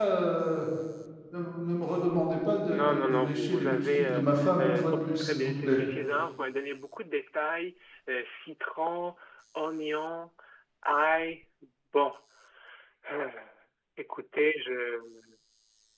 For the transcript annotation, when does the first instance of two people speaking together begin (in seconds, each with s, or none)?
2.6 s